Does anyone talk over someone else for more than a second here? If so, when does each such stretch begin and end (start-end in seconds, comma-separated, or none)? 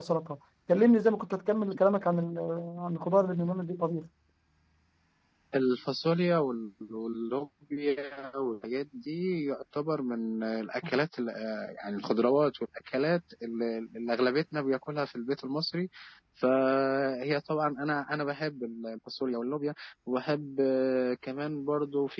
none